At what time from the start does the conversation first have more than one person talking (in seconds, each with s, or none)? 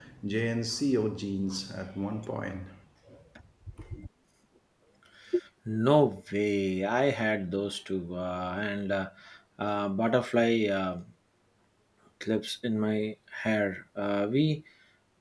none